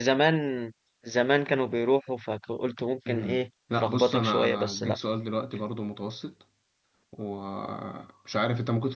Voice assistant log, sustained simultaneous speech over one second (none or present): present